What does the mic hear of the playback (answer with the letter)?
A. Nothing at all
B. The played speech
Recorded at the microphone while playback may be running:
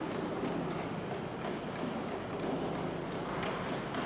A